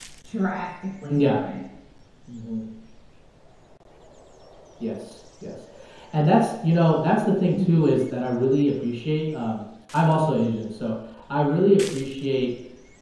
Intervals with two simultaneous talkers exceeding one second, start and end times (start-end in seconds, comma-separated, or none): none